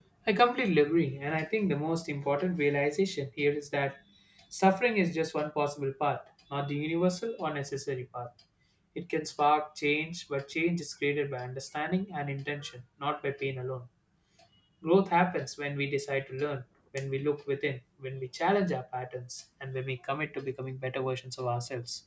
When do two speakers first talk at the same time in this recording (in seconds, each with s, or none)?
none